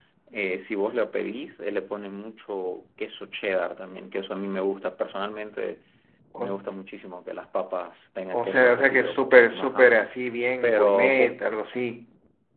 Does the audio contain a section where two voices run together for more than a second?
Yes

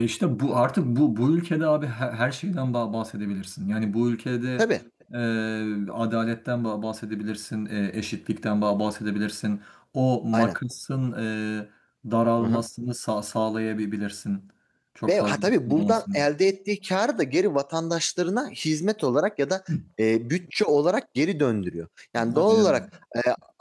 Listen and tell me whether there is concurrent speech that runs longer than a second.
Yes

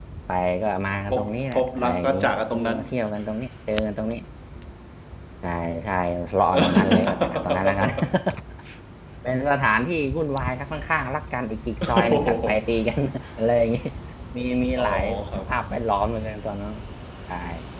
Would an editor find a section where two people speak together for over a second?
Yes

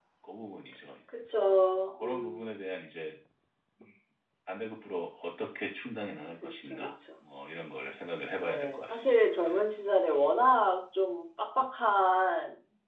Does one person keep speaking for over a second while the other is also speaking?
Yes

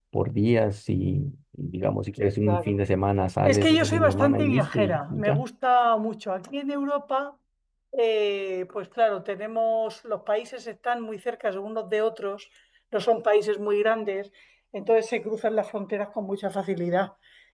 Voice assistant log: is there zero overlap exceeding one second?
No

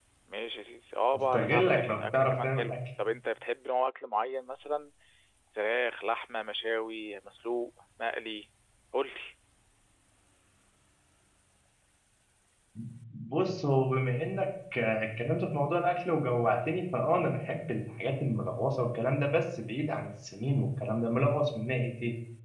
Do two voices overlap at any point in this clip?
Yes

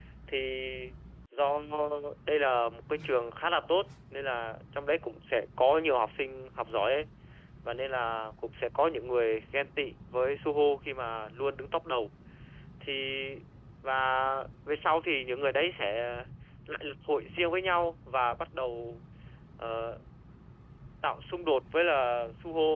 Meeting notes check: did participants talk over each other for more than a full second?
No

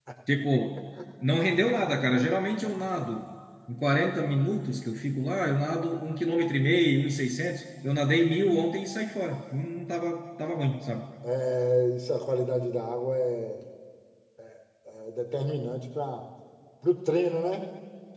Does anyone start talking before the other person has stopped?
No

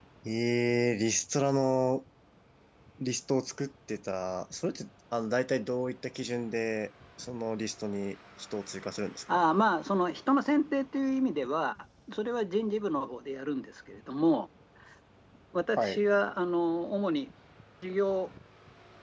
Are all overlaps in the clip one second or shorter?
Yes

